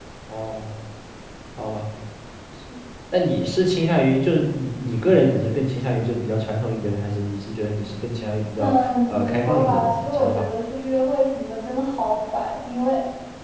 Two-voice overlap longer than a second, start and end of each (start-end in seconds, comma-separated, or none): 8.6-10.5